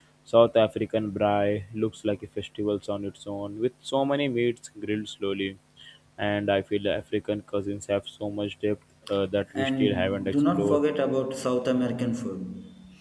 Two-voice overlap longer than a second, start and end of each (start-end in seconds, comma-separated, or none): 9.6-10.8